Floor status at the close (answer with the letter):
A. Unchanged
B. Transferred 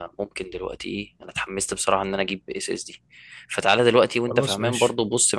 A